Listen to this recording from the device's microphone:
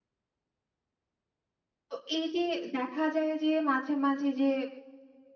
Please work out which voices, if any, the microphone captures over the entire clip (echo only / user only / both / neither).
user only